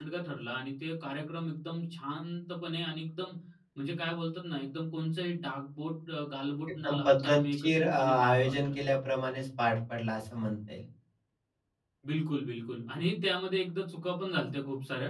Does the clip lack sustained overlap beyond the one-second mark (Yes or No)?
No